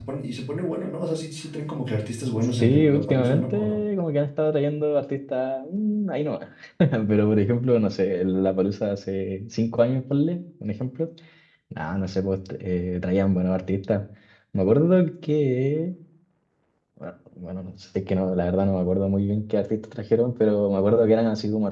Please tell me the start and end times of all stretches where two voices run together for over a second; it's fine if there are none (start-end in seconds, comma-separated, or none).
2.5-3.8